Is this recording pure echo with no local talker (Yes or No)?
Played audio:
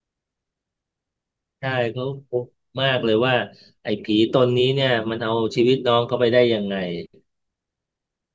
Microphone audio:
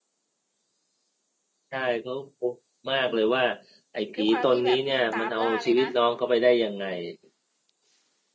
No